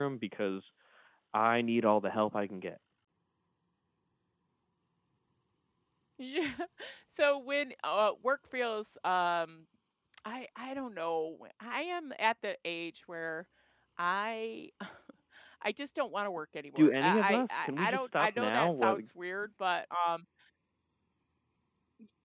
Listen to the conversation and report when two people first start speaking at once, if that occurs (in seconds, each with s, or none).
16.8 s